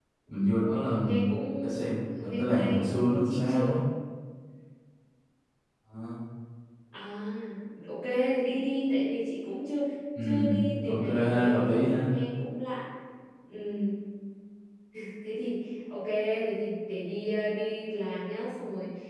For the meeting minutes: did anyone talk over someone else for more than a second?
Yes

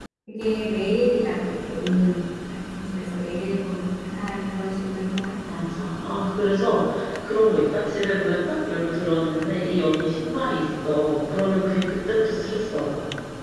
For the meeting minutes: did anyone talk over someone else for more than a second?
No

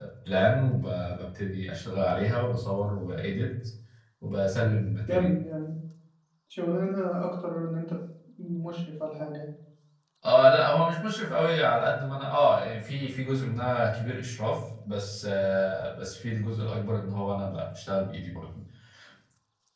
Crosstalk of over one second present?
No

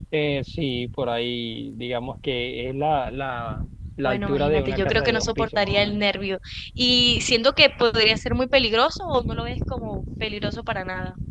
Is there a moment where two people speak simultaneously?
Yes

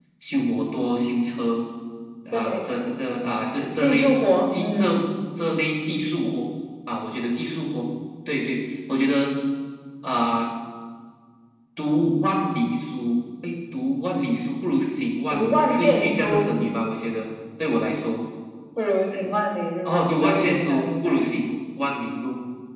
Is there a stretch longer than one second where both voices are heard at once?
Yes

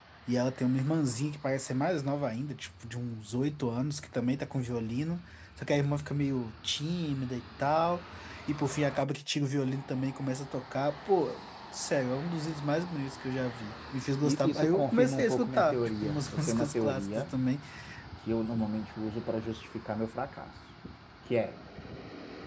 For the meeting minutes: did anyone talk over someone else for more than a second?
Yes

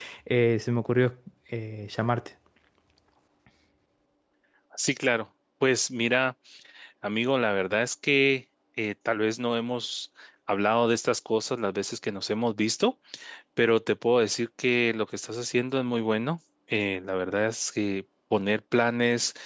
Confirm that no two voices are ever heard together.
Yes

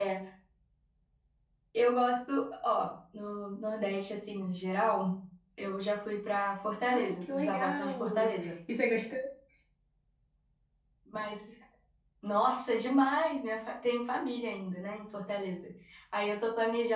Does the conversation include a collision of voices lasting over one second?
Yes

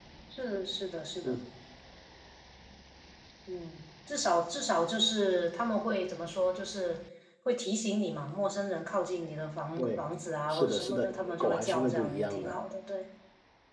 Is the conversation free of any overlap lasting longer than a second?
No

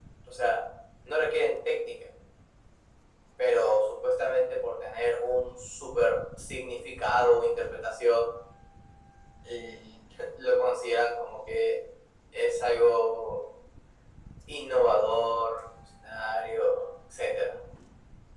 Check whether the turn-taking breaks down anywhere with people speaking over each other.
No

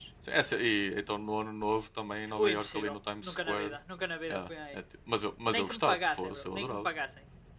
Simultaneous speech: Yes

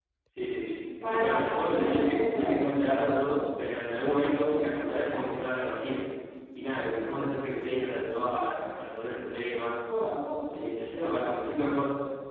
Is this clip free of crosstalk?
No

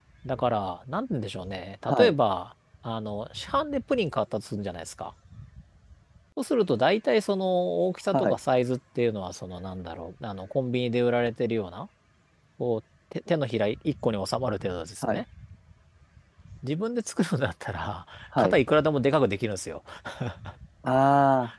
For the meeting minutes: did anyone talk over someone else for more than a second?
No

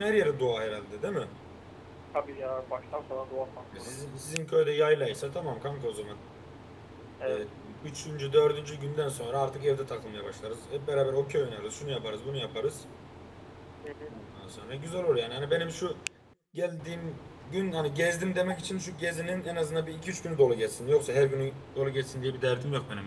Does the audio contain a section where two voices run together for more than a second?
No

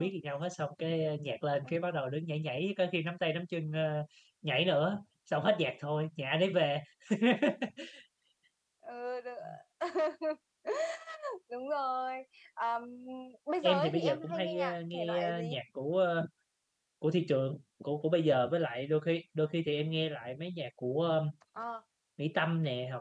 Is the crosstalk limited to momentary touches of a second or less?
No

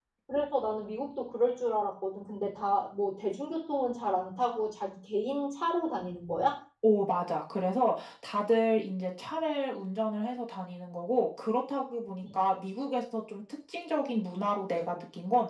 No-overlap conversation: Yes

